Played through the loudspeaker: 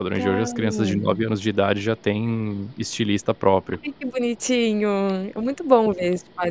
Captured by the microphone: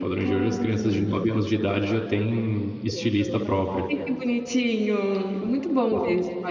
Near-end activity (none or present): present